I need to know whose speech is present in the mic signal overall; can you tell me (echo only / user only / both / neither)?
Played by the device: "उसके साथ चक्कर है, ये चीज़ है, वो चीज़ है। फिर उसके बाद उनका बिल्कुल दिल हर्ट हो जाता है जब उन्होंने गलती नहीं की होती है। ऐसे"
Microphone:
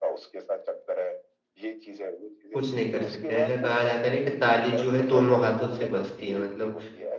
both